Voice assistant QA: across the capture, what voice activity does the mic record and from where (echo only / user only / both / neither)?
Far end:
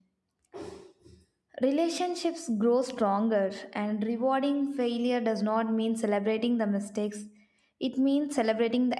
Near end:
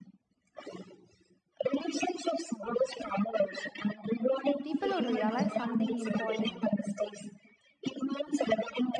both